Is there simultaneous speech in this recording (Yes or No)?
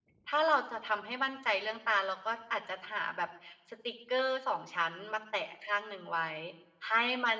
No